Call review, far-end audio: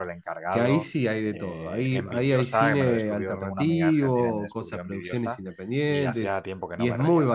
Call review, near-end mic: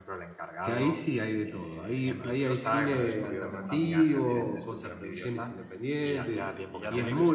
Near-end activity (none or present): present